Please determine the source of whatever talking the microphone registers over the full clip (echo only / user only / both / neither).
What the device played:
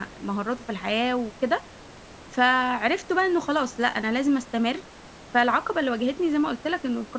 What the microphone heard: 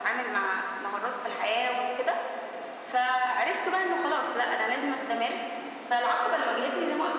echo only